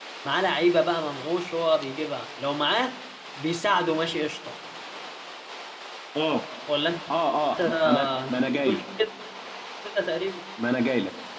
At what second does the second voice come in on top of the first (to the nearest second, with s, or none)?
8 s